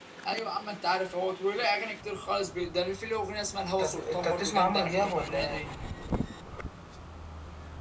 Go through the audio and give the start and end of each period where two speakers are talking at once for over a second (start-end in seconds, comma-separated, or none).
3.8-5.7